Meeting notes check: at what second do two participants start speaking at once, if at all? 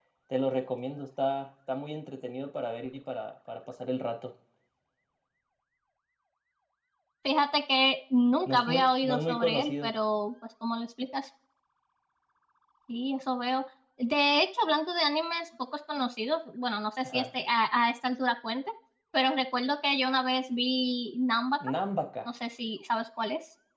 8.5 s

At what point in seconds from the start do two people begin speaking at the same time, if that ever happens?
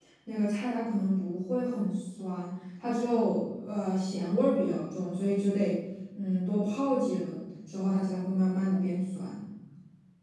none

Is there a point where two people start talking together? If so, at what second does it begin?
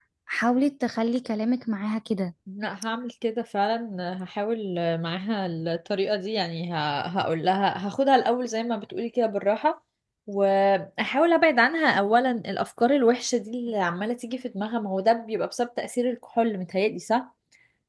none

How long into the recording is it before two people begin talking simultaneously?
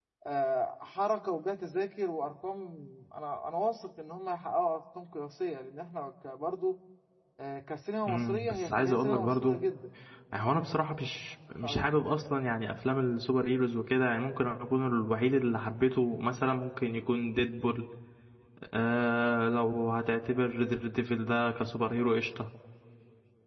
8.0 s

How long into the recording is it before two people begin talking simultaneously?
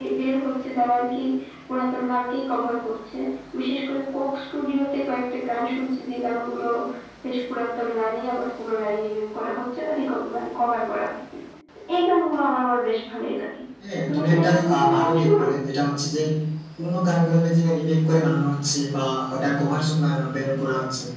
13.9 s

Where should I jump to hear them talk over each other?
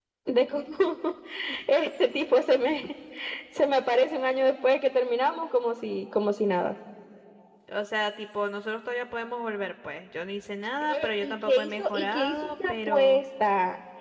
10.8 s

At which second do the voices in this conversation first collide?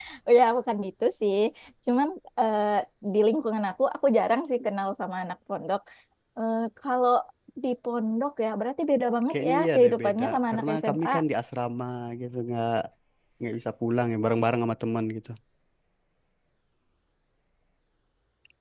9.3 s

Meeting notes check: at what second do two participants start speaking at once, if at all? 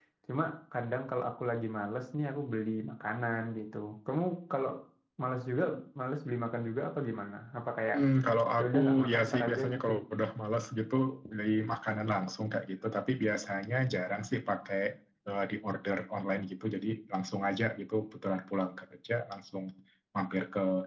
8.6 s

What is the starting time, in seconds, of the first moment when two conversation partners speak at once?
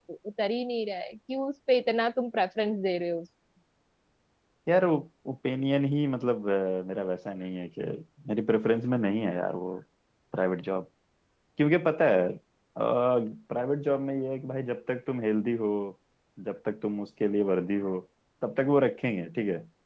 none

